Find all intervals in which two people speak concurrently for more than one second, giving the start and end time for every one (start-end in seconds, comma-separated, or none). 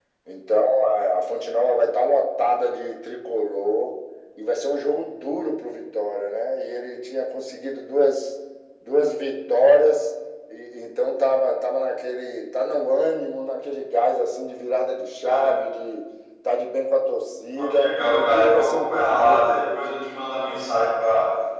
17.6-19.9